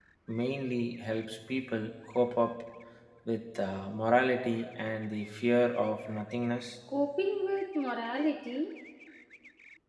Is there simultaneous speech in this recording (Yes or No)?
No